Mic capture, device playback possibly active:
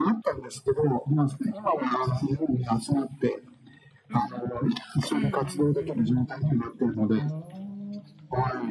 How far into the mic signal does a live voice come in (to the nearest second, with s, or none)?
4 s